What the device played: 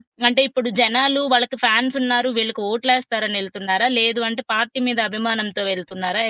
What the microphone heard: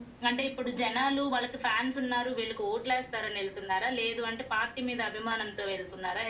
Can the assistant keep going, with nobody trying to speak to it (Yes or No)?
Yes